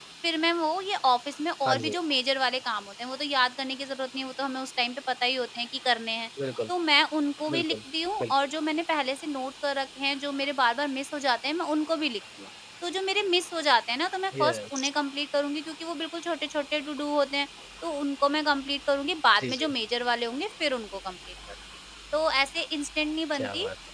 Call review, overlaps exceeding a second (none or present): none